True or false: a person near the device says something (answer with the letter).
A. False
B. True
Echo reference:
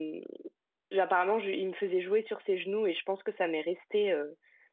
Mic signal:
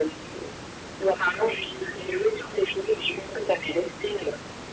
A